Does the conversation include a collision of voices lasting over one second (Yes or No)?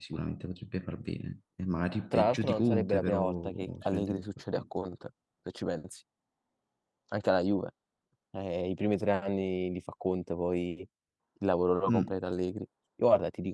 Yes